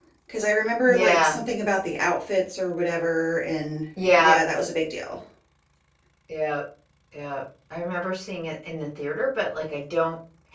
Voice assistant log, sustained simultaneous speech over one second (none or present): none